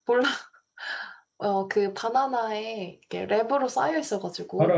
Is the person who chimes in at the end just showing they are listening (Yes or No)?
No